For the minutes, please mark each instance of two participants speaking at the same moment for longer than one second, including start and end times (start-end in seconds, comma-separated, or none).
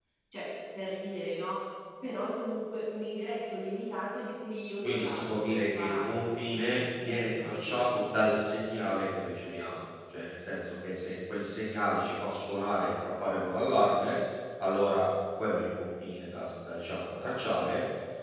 4.8-8.0